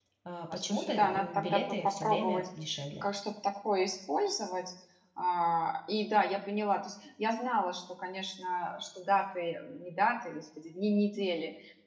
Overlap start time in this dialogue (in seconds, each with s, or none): 0.5 s